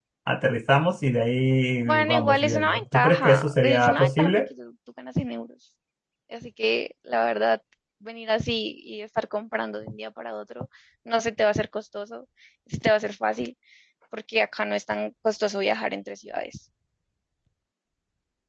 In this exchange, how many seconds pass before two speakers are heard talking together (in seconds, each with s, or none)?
1.9 s